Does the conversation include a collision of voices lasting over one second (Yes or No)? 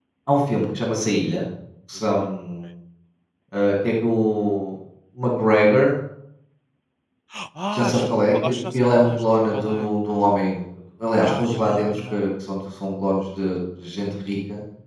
Yes